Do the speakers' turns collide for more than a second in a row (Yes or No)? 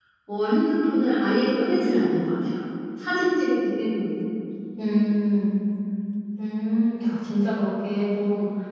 No